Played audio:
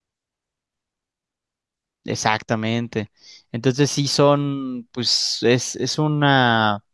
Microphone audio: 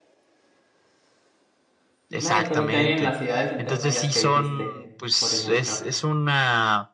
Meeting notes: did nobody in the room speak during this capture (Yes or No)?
No